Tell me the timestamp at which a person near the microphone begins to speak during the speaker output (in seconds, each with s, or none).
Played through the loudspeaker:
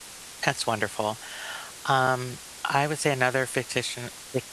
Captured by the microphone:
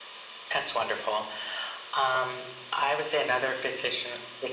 none